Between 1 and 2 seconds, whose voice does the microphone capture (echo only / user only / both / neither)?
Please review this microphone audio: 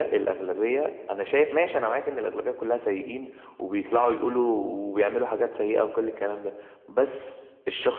echo only